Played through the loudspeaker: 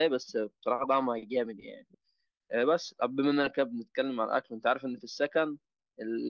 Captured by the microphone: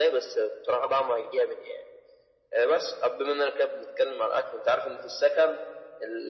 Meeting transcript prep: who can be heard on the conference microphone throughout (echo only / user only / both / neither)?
echo only